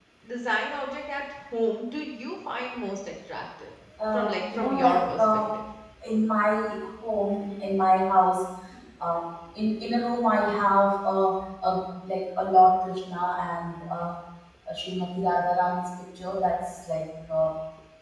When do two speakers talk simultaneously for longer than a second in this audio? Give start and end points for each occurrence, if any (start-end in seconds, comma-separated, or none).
4.1-5.4